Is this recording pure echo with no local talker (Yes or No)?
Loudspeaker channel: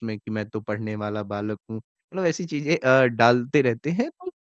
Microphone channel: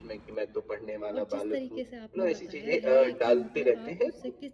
No